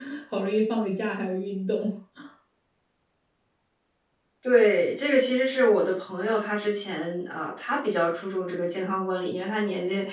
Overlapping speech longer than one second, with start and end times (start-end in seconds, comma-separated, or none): none